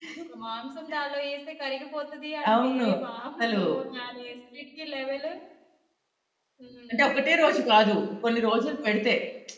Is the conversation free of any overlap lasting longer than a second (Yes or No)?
Yes